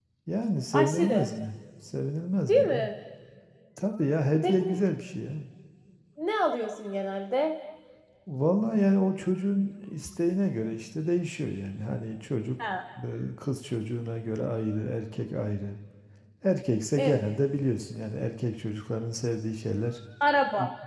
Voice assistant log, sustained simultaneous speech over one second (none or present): none